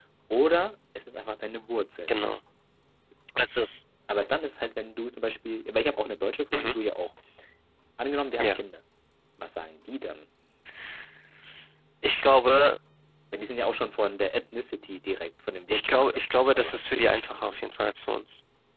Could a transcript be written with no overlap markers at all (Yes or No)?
No